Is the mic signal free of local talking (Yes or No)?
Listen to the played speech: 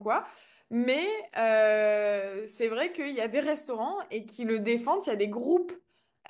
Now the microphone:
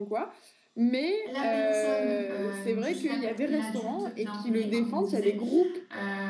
No